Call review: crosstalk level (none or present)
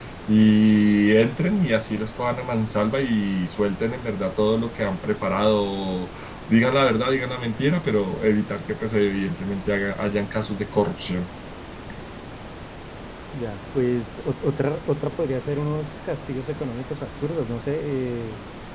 none